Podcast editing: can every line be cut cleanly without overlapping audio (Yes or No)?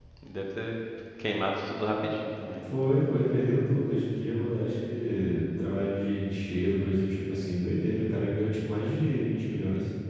Yes